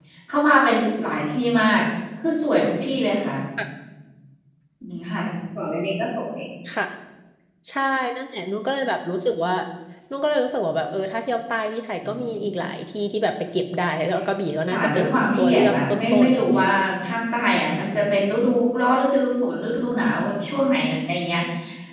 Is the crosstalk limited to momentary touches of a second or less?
No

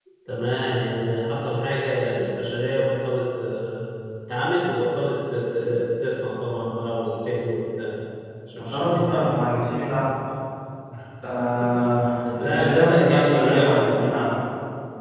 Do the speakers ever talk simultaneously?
Yes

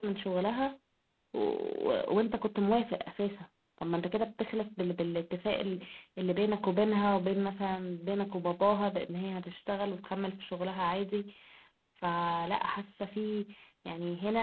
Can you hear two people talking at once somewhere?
No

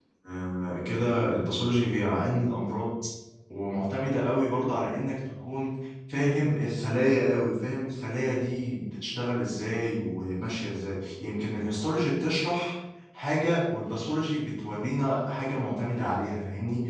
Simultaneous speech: No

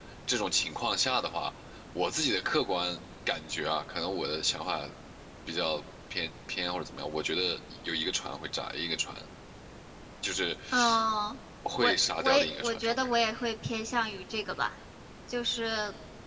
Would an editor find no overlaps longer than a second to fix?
No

